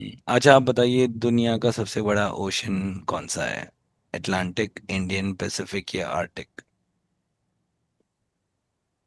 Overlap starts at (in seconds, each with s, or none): none